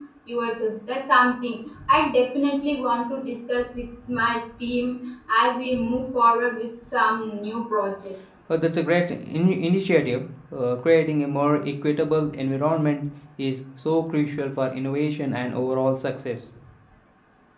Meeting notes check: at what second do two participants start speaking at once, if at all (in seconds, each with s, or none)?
none